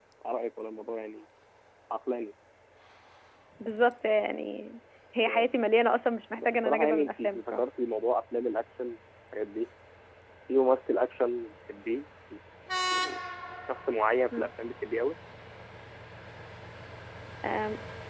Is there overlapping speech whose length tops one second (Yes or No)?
Yes